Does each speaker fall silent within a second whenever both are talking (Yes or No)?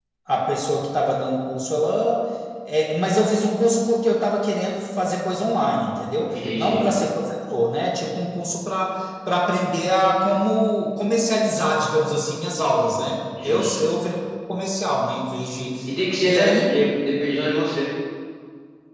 Yes